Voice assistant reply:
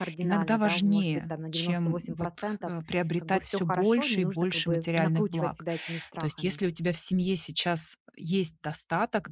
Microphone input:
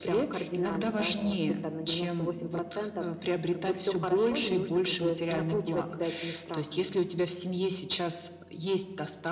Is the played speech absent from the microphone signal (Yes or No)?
No